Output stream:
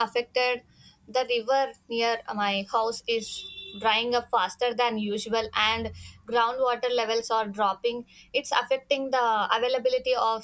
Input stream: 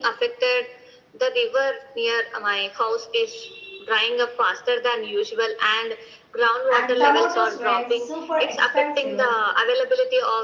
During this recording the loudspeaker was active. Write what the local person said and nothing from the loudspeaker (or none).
and tomatoes were super expensive.